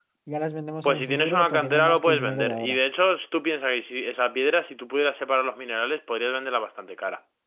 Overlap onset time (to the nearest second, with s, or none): 1 s